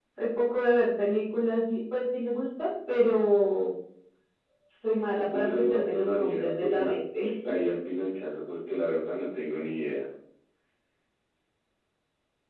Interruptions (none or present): present